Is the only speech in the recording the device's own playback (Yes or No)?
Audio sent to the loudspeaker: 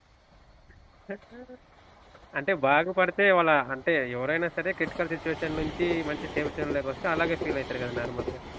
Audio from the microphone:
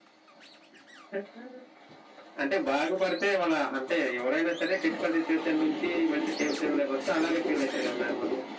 Yes